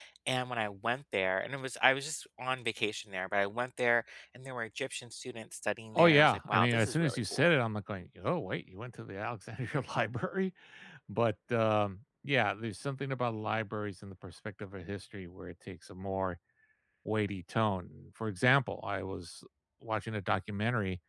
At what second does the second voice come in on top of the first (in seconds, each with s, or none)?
6.0 s